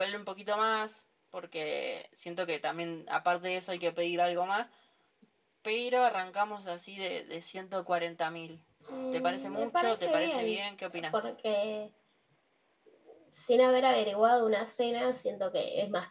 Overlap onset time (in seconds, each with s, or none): 9.1 s